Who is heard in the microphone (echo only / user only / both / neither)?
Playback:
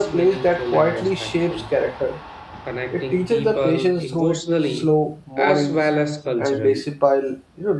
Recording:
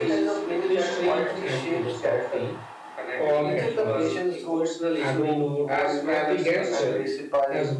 both